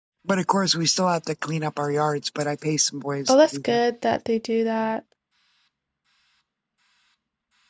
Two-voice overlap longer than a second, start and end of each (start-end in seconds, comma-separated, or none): none